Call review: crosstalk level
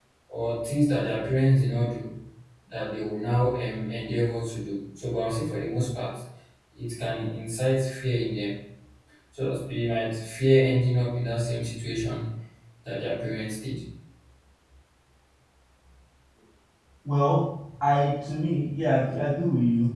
none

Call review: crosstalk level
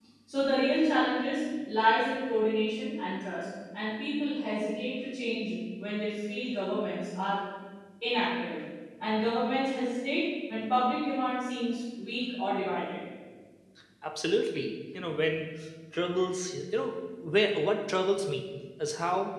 none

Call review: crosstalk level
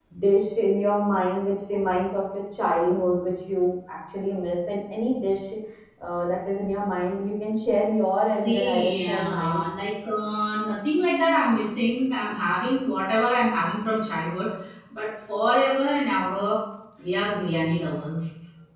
present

